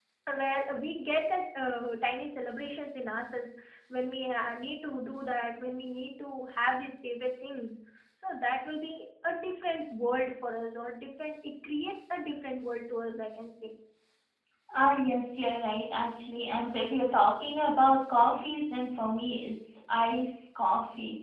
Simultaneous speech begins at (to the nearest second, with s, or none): none